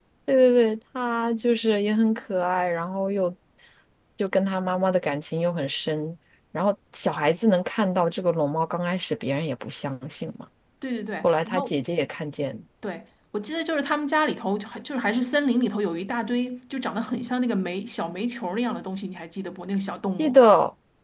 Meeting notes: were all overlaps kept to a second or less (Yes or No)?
Yes